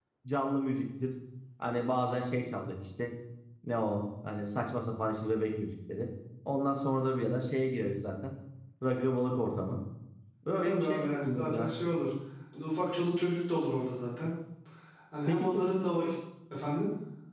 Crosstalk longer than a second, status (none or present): present